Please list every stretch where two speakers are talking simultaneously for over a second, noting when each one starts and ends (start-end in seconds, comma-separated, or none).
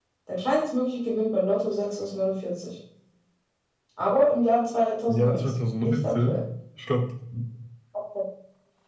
5.1-6.4